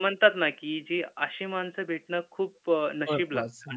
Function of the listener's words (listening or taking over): listening